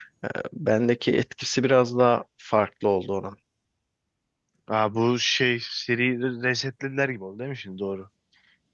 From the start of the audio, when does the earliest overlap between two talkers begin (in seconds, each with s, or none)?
none